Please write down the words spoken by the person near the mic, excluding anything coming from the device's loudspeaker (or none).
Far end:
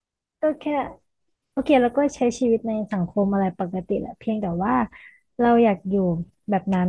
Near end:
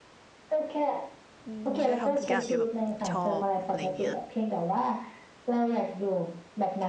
อืมได้ทำทุกอย่างที่แบบชอบอะไรเงี้ย